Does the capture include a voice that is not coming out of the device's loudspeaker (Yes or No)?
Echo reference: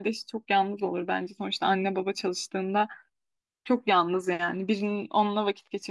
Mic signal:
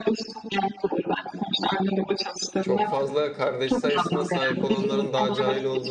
Yes